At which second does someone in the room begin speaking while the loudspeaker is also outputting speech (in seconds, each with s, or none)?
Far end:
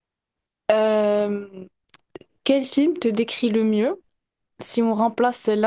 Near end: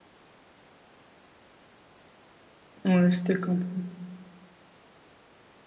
2.8 s